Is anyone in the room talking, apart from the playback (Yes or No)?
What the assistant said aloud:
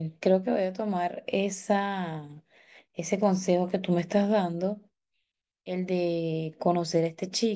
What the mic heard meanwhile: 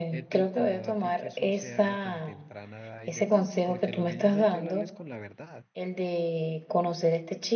Yes